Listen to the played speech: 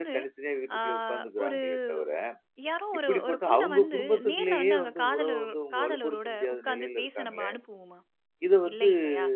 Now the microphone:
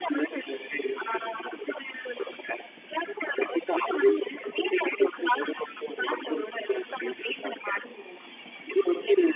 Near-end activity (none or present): none